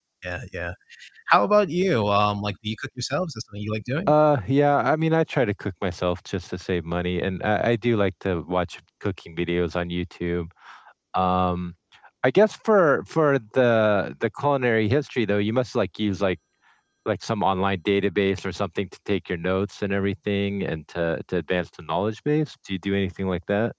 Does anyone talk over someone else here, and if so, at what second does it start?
none

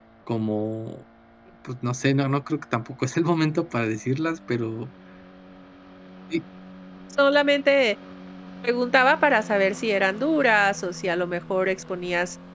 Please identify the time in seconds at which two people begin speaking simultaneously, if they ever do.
none

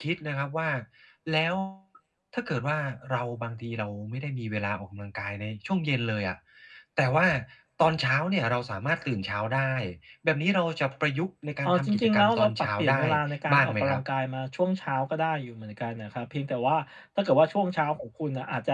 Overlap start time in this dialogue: 11.7 s

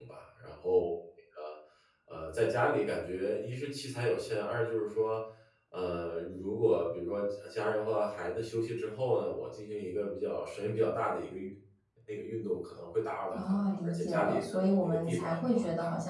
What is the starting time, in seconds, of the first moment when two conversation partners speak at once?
13.3 s

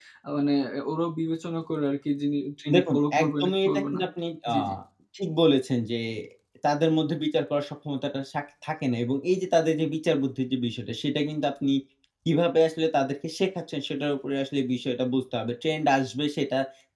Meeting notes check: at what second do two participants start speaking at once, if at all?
2.7 s

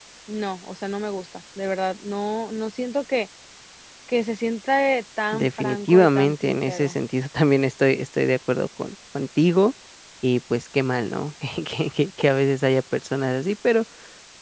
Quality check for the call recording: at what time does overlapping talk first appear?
5.3 s

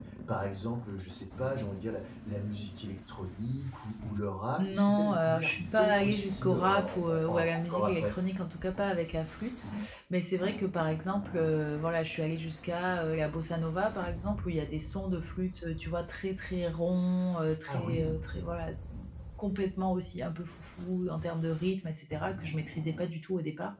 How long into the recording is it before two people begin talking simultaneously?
4.6 s

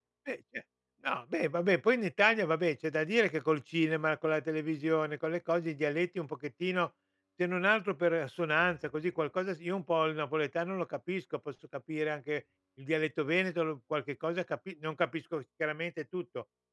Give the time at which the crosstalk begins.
none

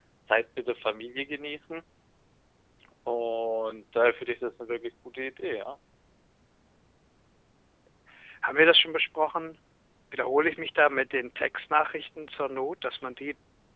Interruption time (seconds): none

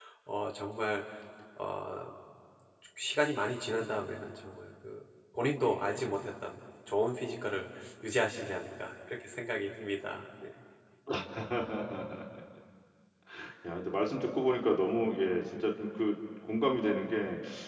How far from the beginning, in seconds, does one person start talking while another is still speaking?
none

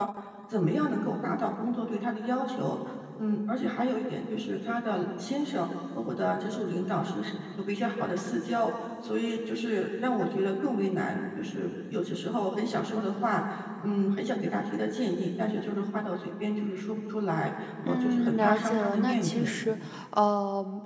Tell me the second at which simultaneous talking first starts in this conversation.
17.8 s

